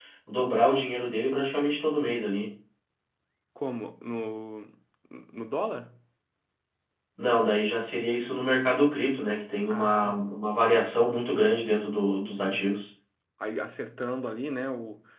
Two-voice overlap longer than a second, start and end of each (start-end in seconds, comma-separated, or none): none